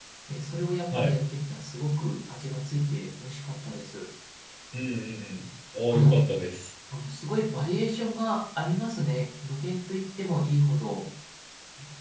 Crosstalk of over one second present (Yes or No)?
No